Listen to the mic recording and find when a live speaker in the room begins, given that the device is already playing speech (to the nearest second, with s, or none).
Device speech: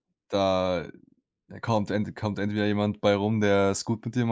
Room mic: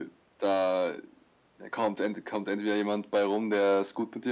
none